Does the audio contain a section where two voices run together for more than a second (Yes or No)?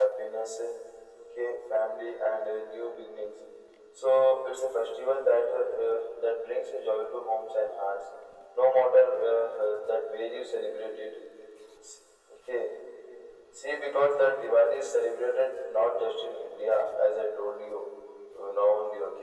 No